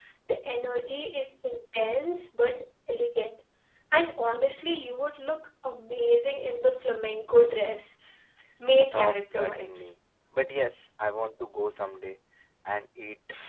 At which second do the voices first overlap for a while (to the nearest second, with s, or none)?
9 s